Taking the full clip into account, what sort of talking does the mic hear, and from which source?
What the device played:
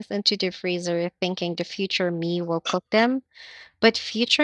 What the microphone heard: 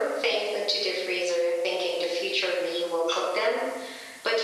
echo only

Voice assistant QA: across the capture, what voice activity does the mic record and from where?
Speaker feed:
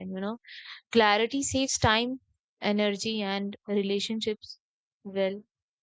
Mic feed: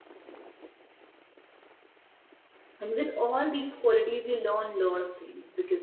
user only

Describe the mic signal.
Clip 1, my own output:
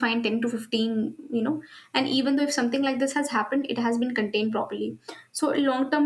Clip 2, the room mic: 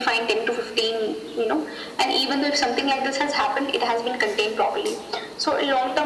echo only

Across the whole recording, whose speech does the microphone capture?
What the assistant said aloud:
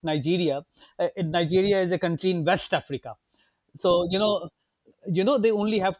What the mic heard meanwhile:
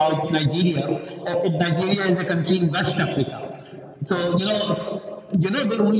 echo only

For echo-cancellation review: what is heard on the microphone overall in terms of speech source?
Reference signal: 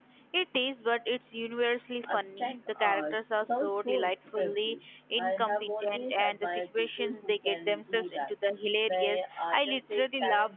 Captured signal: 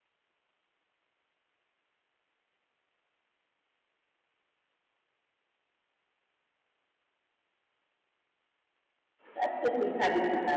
user only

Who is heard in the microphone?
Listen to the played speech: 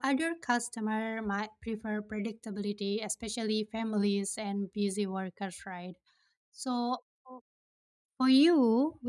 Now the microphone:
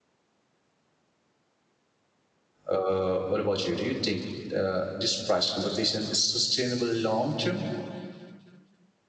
user only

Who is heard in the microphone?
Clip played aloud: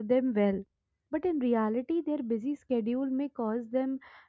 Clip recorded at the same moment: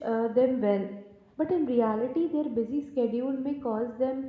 echo only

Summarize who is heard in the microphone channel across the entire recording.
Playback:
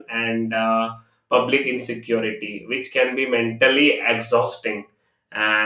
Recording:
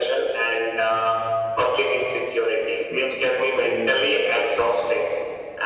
both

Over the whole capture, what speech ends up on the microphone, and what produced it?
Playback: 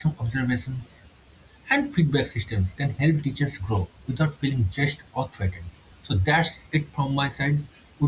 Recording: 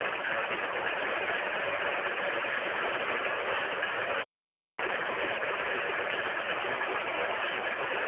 neither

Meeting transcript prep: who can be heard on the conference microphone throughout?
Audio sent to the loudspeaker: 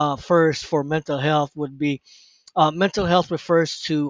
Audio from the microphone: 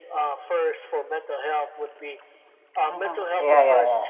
both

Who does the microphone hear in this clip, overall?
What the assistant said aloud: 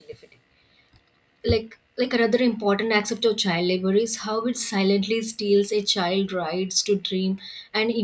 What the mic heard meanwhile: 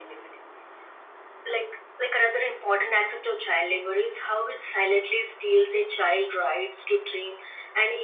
echo only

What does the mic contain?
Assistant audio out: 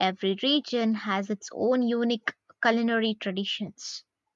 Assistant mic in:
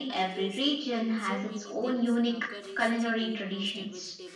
both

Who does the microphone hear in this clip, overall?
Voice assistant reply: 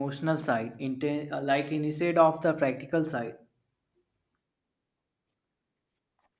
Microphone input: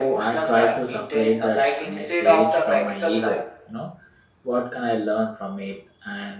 both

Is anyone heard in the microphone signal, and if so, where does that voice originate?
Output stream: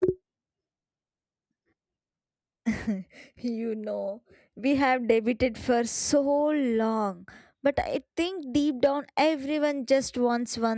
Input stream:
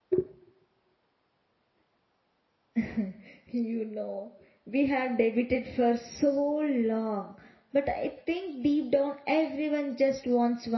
echo only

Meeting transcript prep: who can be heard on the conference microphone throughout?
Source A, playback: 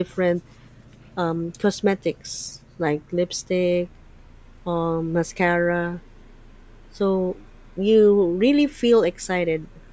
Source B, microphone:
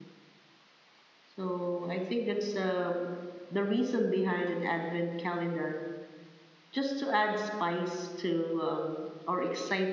user only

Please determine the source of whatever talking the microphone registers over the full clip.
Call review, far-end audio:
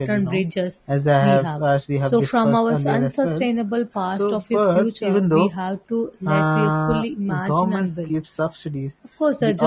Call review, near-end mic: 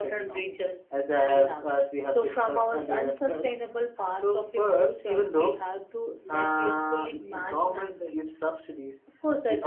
echo only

